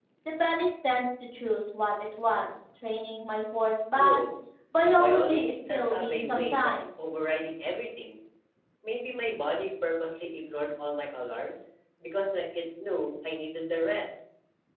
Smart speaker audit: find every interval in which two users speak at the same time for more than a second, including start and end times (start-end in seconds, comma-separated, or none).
4.9-7.2